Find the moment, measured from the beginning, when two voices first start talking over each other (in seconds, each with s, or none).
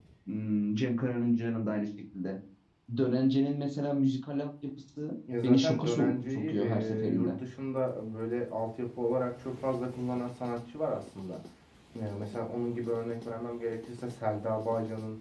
5.3 s